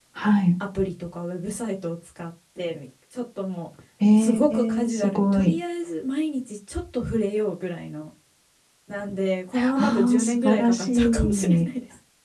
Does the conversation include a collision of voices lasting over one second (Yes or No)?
Yes